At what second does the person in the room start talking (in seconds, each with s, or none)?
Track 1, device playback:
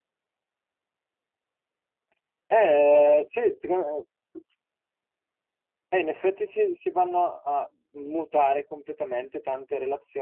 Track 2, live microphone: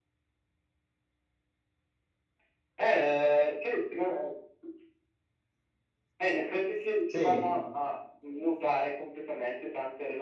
7.0 s